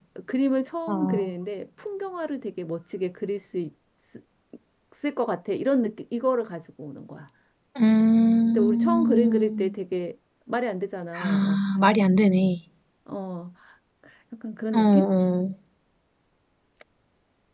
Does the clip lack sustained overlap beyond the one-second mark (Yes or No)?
No